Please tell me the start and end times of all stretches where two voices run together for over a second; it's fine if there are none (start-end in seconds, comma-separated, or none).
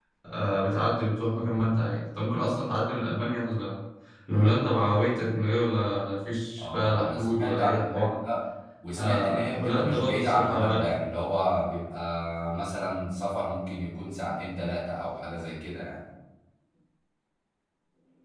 6.6-8.1, 9.0-10.8